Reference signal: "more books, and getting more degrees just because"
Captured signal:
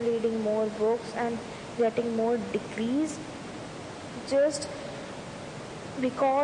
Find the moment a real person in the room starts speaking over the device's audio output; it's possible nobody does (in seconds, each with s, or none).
none